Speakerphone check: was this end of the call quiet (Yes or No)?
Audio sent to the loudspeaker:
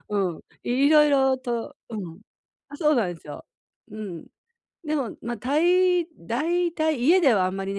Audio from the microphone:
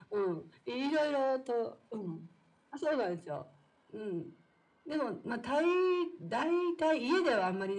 Yes